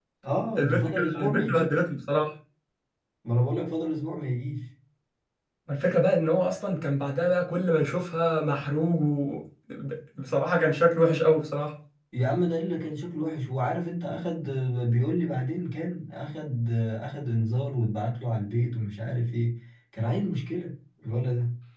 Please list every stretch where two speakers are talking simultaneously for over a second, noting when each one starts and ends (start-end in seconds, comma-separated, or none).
0.6-1.8